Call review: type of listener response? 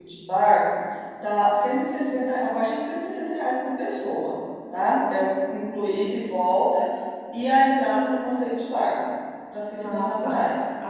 taking over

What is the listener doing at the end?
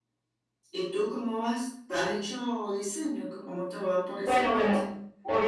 taking over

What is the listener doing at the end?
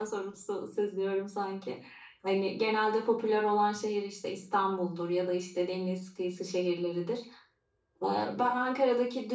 listening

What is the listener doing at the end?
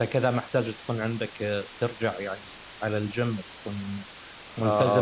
taking over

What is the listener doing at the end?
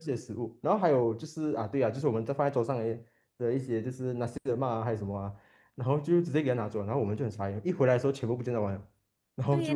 taking over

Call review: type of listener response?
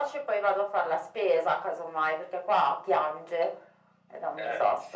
taking over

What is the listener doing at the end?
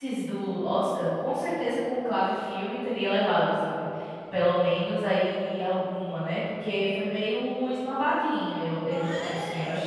taking over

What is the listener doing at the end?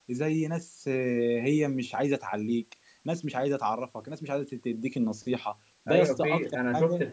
taking over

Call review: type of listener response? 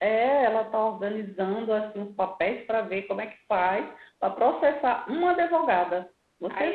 taking over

